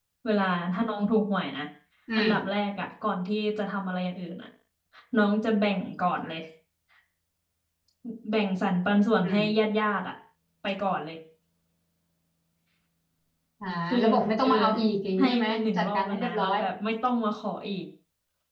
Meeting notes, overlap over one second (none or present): present